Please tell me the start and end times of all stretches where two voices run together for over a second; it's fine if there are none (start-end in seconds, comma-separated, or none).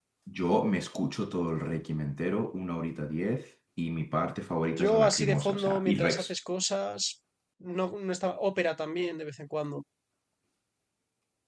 4.8-6.3